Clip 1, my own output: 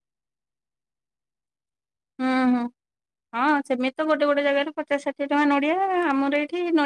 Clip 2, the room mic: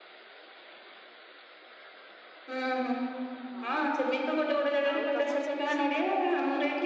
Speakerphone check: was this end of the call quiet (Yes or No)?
No